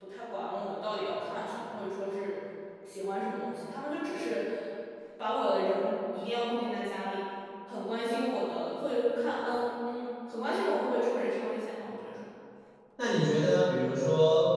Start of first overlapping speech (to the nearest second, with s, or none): none